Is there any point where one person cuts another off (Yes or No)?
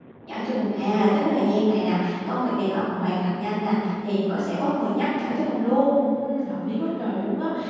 No